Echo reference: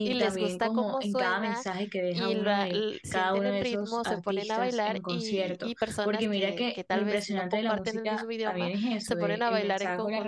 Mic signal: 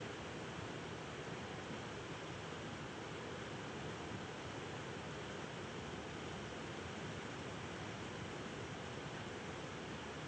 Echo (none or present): none